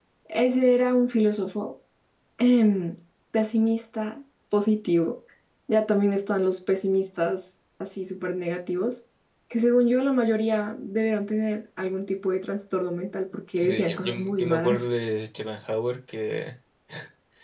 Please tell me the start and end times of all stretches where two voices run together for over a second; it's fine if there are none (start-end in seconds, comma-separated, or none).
13.6-14.8